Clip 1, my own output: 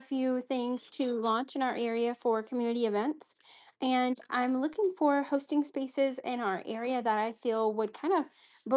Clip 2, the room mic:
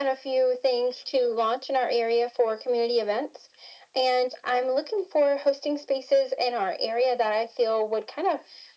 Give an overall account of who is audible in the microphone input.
echo only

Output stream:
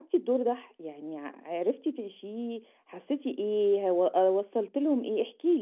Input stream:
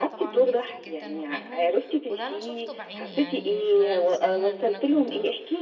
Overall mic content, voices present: both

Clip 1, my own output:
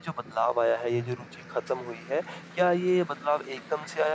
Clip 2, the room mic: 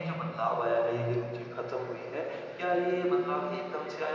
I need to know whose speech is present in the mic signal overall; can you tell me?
echo only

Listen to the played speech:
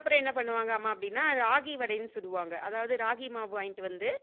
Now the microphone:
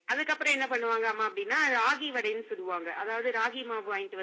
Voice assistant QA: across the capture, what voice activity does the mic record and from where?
echo only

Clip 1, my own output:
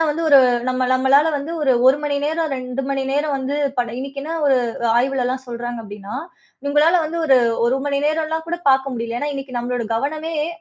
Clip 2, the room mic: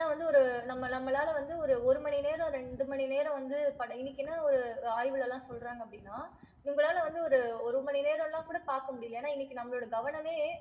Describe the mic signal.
echo only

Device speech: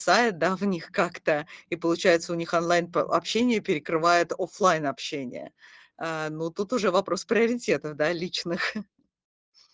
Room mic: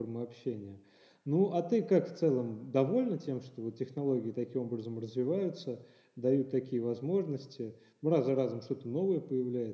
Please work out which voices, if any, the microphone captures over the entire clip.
user only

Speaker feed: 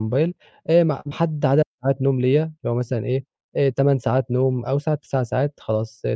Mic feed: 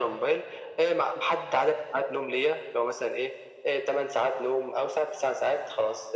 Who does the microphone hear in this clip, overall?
echo only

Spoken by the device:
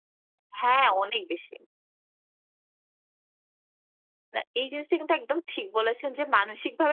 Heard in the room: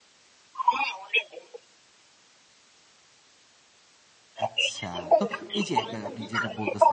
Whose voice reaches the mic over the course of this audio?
both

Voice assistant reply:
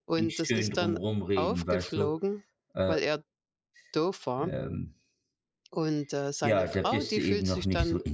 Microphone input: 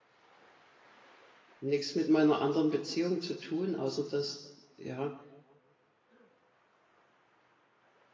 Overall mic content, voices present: user only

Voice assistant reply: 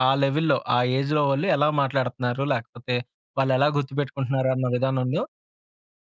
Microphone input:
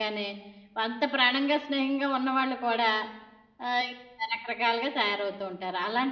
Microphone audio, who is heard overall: user only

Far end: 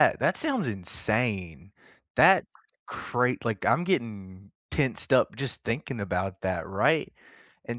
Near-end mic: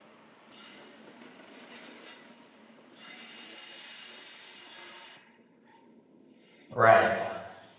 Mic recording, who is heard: user only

